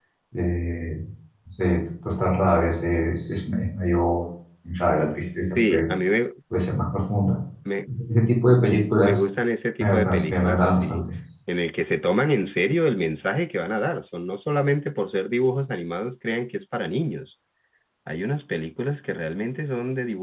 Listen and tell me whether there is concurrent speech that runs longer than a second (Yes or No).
Yes